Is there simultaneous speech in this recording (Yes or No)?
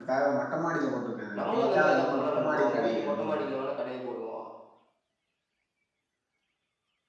Yes